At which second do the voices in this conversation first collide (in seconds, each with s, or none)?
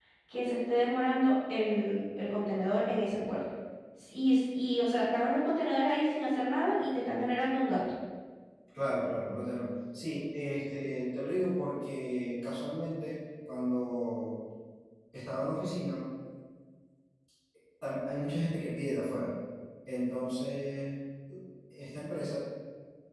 none